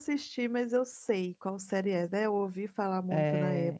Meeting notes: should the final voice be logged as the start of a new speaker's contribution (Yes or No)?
Yes